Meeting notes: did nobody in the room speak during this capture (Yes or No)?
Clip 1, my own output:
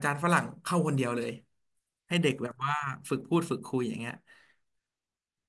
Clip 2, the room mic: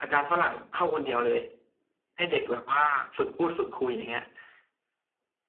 Yes